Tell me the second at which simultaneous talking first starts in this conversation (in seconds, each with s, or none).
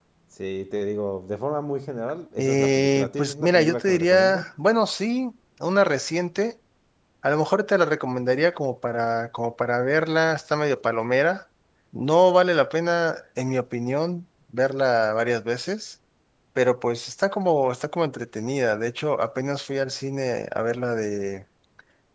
2.4 s